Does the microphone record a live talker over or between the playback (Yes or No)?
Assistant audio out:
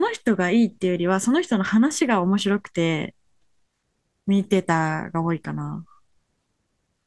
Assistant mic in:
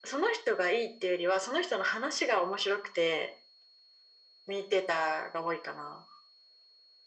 No